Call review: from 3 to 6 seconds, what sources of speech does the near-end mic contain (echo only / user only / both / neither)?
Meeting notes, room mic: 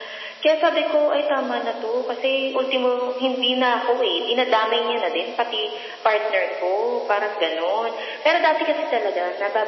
echo only